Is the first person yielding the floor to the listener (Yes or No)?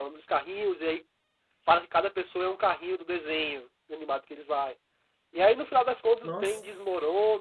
No